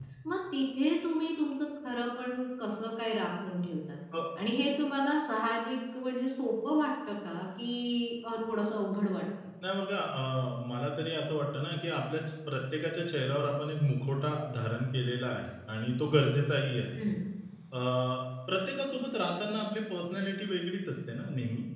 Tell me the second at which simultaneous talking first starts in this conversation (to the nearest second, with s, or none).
none